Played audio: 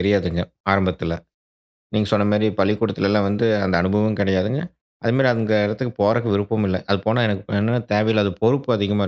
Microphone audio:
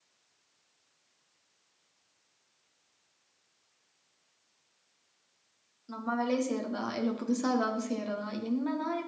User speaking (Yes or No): Yes